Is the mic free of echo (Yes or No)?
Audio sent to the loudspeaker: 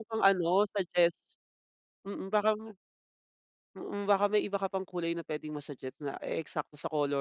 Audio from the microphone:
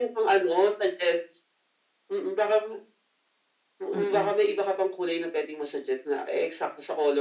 No